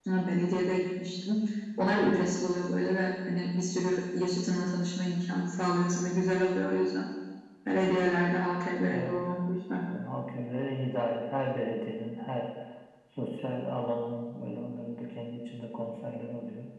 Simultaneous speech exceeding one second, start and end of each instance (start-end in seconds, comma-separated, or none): none